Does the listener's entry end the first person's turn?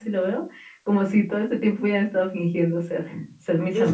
Yes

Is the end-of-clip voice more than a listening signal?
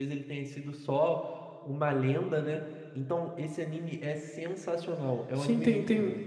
Yes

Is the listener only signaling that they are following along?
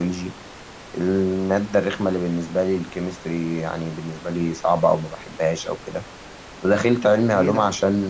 Yes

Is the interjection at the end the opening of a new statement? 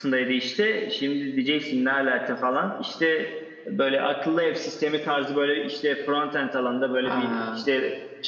No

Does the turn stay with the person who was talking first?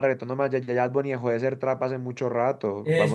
No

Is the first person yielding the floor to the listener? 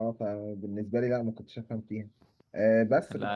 No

